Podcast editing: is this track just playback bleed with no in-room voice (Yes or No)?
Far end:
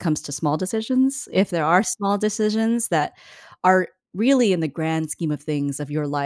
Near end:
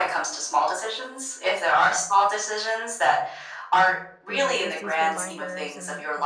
No